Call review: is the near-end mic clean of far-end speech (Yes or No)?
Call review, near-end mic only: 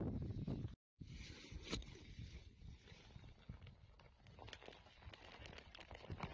Yes